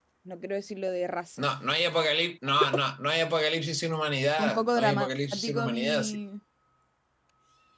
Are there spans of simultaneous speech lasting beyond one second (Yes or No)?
Yes